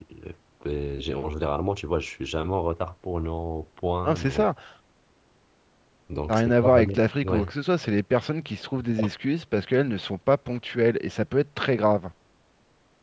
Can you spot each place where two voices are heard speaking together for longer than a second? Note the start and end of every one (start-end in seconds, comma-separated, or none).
6.3-7.5